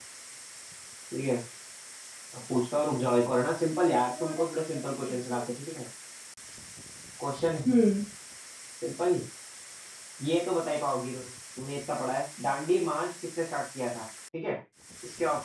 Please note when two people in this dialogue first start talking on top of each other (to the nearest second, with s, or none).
4 s